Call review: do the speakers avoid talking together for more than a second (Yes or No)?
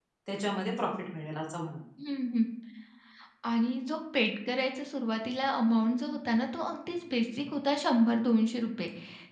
Yes